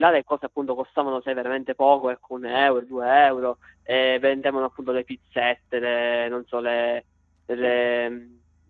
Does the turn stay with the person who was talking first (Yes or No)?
Yes